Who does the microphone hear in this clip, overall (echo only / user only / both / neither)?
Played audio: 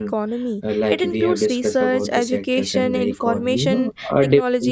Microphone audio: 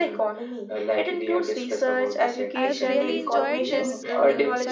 both